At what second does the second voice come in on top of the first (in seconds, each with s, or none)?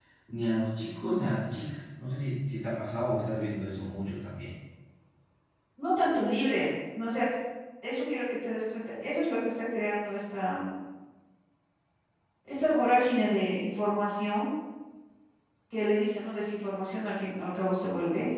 none